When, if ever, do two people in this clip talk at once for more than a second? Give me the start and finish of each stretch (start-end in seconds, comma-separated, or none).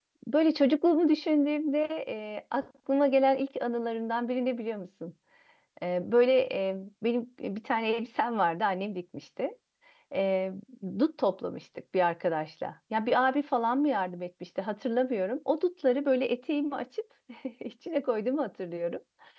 none